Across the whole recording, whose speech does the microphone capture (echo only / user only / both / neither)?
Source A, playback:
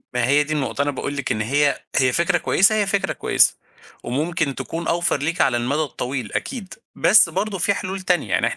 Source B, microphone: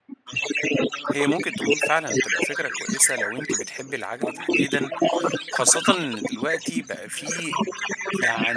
both